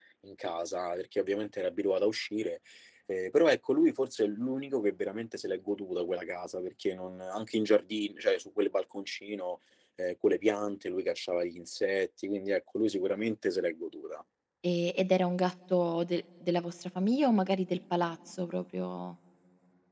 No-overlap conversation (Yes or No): Yes